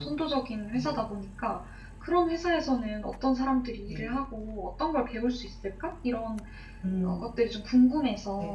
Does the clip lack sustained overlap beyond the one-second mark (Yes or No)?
Yes